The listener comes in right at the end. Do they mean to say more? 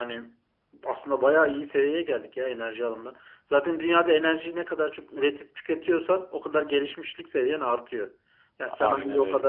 No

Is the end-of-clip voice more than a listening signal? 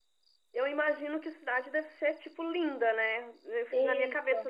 No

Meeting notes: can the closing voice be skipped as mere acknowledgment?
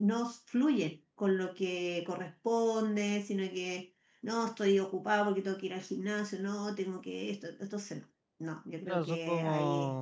No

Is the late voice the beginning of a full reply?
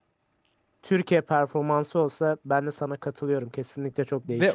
Yes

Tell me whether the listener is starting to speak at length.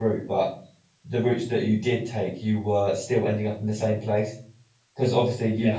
No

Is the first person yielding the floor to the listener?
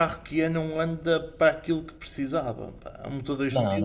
Yes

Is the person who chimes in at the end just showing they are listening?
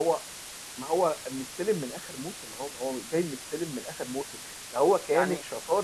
Yes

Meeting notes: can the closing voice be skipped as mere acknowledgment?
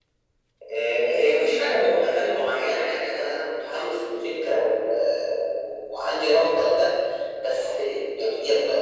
Yes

